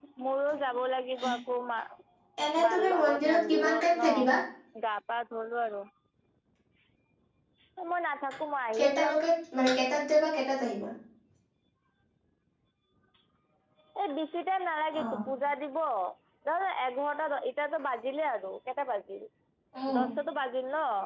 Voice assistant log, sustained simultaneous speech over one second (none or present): present